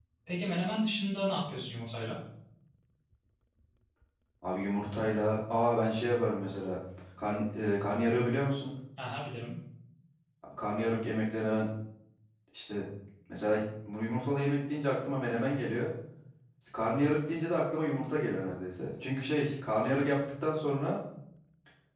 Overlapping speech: No

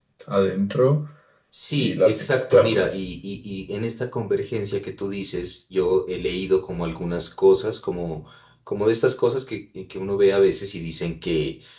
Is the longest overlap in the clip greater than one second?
Yes, from 1.8 s

